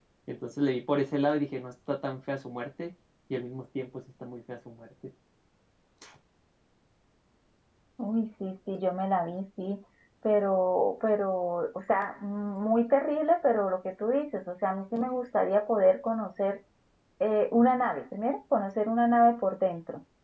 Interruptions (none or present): none